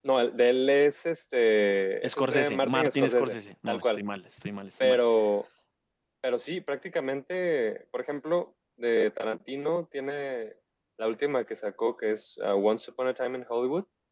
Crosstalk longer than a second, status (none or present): present